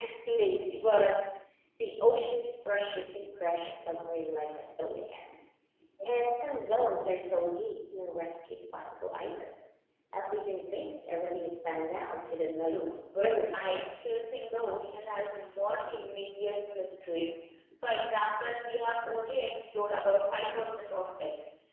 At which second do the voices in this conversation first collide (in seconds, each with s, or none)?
12.6 s